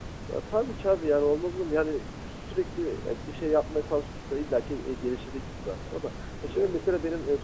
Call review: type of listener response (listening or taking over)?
listening